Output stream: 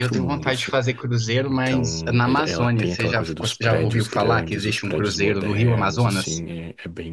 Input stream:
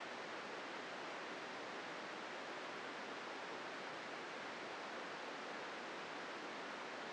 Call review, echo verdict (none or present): none